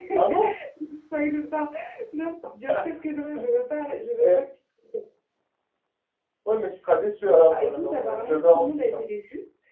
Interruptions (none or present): present